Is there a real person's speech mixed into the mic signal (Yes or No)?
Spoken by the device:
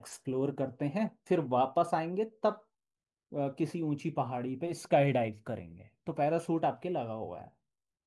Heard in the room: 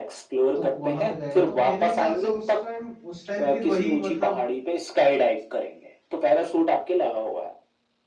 Yes